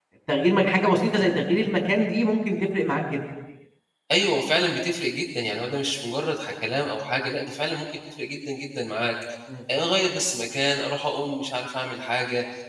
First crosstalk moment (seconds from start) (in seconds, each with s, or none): none